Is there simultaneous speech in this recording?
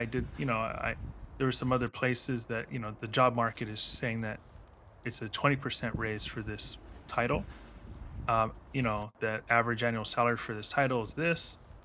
No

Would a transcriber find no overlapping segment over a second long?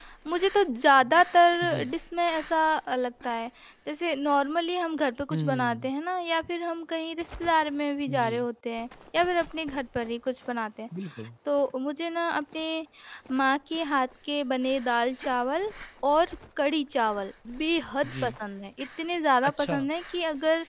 Yes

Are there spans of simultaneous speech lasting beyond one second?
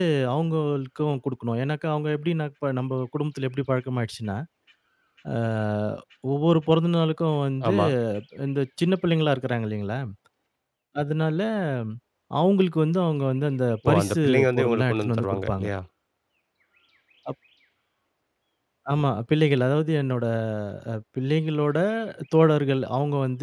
Yes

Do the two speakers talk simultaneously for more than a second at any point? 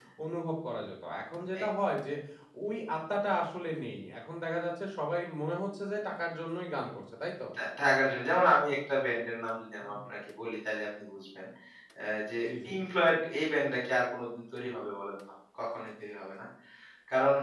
No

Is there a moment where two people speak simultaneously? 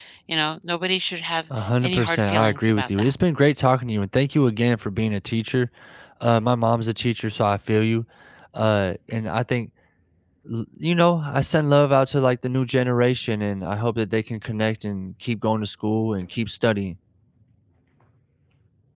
Yes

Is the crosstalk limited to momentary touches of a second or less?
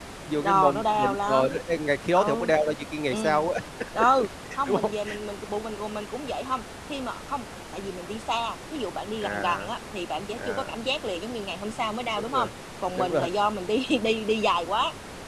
No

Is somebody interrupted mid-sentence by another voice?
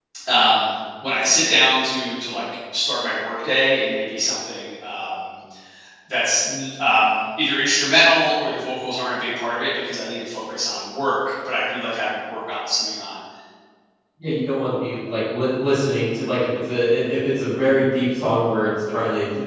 No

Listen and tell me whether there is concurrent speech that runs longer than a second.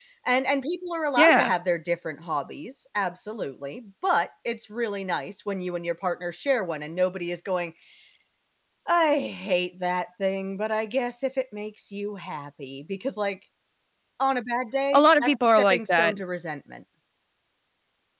Yes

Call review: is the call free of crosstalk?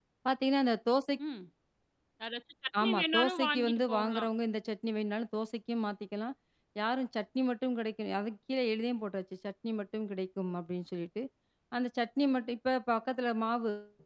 No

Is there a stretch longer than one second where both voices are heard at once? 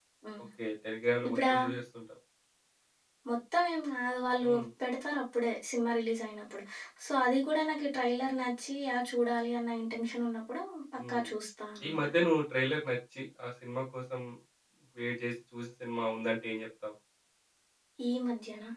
No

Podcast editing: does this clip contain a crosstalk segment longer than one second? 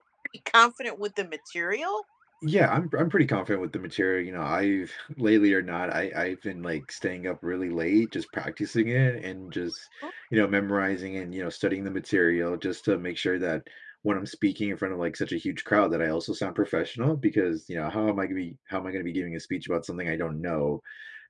No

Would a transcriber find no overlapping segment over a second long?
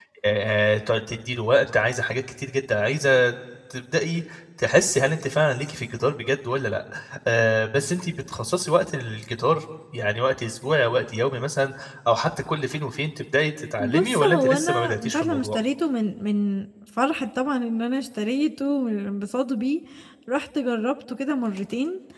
No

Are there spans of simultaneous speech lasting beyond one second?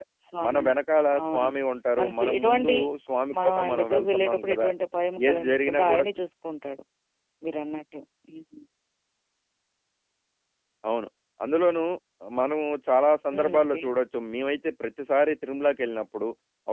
Yes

